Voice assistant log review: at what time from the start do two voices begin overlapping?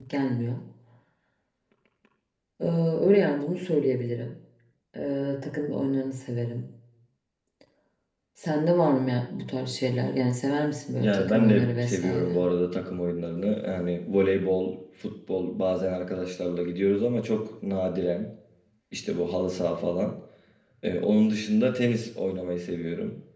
11.0 s

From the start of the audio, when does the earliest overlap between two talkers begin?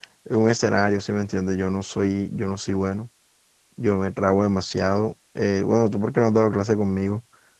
none

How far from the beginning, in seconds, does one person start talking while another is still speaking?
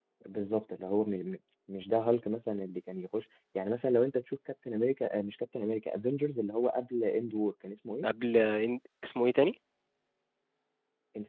none

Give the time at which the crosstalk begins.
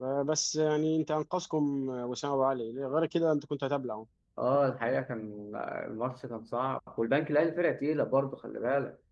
none

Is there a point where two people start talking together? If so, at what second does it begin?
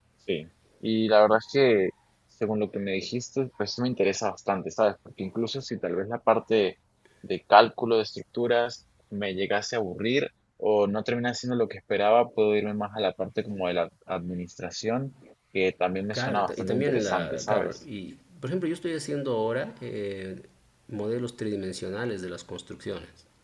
16.1 s

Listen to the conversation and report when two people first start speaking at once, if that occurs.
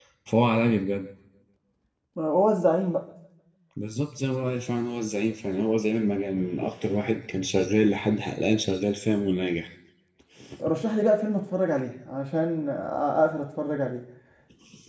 none

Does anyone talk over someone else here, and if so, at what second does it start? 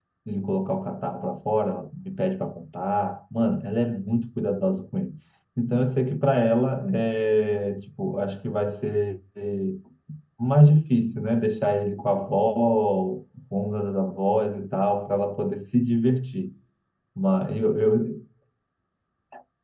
none

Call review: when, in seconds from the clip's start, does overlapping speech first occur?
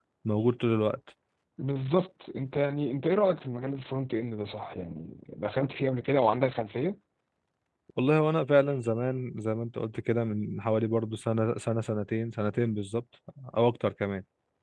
none

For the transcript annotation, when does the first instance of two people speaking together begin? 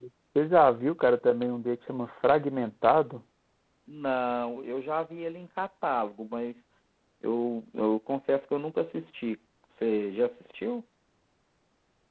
none

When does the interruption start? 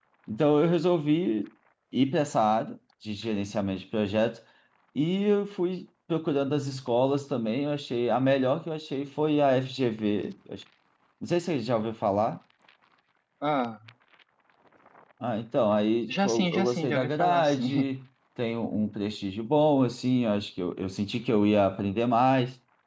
16.1 s

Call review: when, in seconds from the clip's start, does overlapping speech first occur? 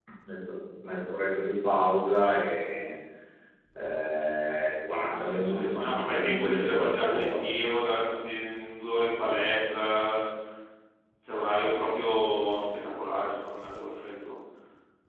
5.2 s

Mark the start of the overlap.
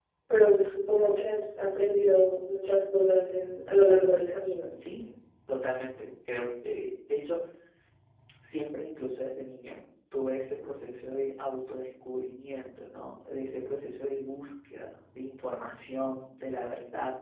none

